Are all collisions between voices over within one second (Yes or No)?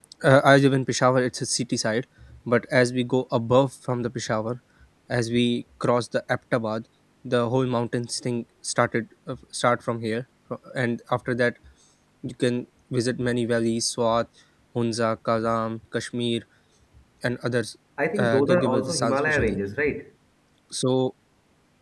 No